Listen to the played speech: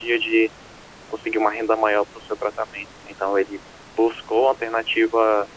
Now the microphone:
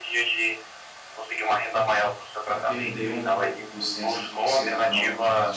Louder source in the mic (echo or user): echo